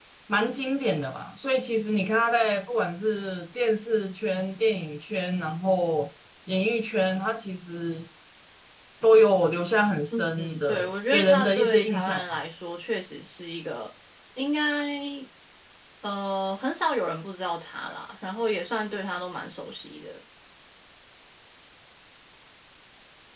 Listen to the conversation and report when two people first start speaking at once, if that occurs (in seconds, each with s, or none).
10.1 s